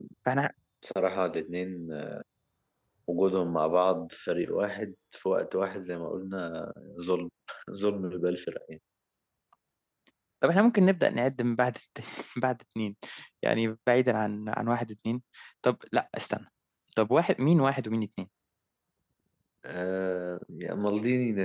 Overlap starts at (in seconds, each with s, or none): none